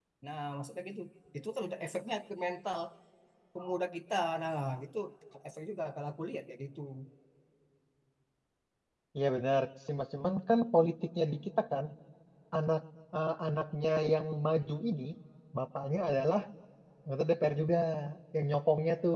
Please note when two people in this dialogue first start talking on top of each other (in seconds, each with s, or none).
none